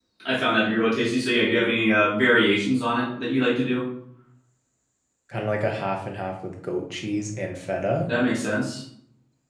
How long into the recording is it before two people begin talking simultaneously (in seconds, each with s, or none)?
none